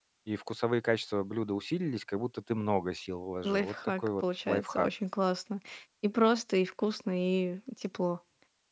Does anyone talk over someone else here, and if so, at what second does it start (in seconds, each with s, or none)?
3.4 s